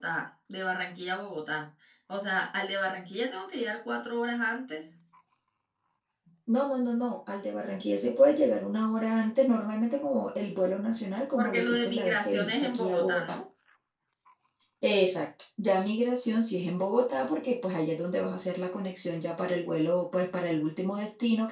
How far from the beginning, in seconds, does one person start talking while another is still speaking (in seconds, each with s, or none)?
11.4 s